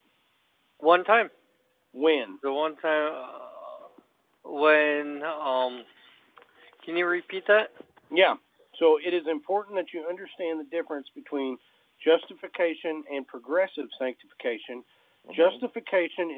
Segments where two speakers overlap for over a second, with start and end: none

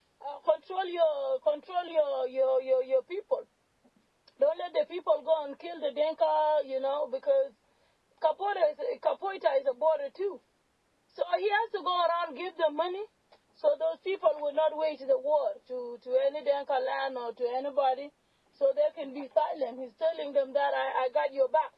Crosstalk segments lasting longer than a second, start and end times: none

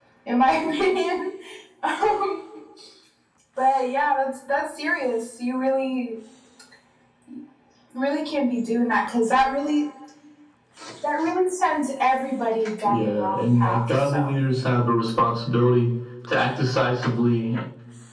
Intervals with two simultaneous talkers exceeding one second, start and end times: 12.8-14.3

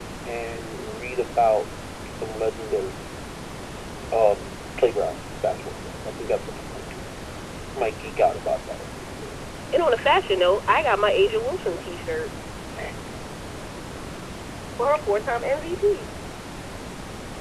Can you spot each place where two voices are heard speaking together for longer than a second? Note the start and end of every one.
none

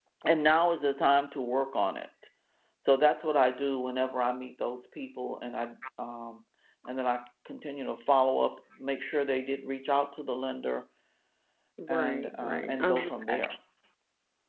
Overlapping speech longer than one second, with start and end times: 11.9-13.5

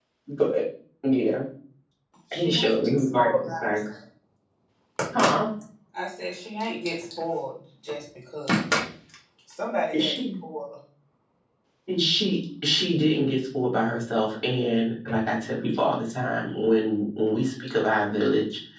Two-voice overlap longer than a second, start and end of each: 2.3-3.8

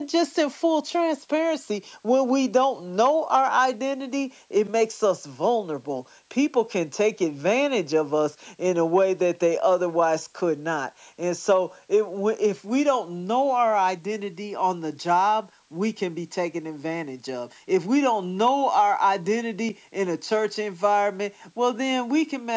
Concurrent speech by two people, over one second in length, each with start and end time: none

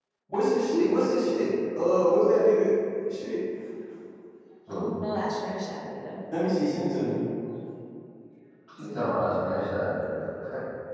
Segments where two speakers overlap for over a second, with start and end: none

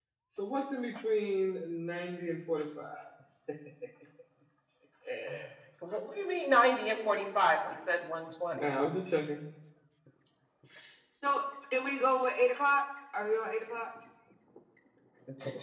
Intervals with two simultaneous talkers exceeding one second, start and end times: none

